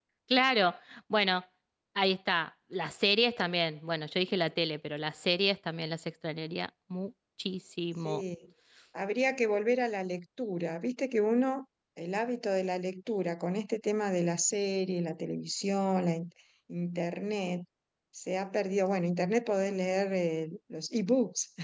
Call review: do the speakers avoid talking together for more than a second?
Yes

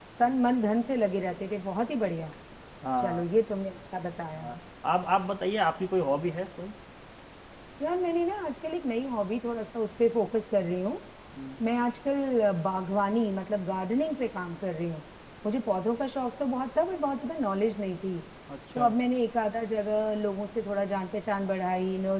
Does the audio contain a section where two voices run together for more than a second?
No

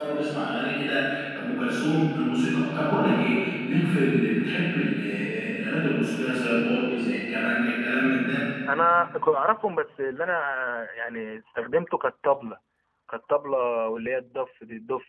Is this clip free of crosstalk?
Yes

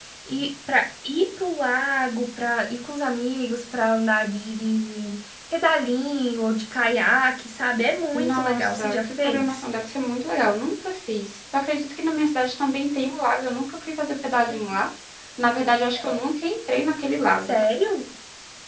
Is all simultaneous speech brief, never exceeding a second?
No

